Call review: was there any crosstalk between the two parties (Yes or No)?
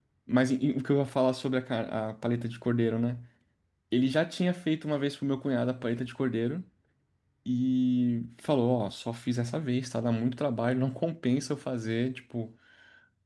No